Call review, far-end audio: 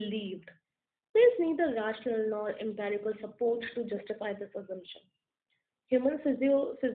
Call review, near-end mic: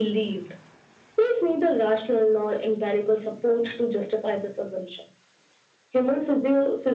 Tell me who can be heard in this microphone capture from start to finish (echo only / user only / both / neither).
echo only